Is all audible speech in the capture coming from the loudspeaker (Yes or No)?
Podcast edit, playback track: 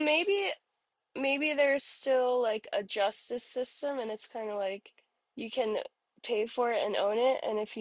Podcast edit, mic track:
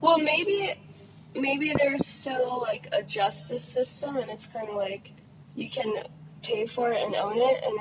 Yes